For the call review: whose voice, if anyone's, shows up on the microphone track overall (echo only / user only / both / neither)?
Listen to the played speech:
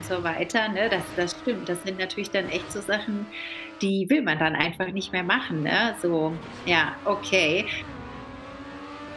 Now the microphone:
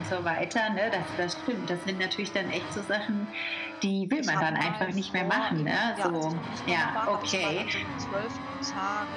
both